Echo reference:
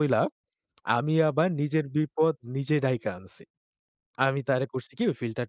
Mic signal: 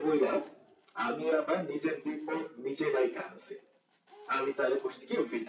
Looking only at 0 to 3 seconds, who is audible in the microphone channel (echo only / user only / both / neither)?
echo only